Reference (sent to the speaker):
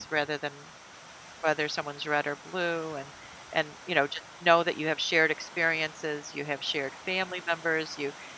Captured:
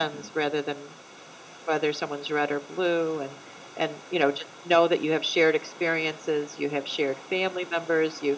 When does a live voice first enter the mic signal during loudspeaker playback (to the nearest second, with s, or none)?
none